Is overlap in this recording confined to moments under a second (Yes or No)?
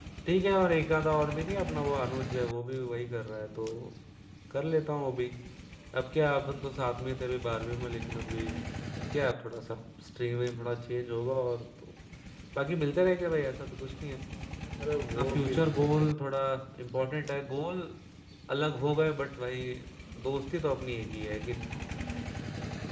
No